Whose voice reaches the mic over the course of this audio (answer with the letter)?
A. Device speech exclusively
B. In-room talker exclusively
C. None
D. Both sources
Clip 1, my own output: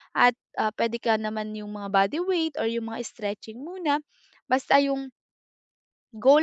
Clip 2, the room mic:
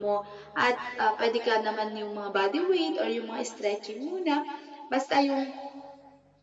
A